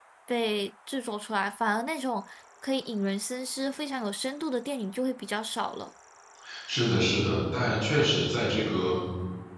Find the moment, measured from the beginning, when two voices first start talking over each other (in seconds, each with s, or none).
none